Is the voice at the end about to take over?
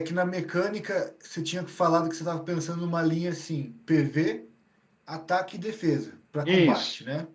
Yes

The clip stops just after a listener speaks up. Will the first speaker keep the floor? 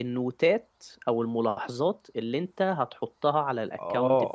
No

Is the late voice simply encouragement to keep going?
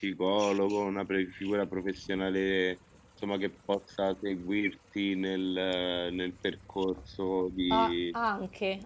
No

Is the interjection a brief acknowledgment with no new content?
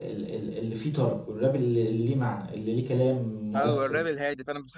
No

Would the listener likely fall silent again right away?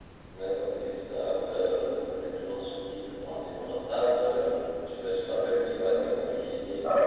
No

